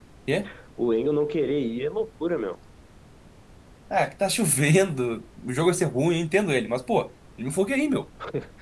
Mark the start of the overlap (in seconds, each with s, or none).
none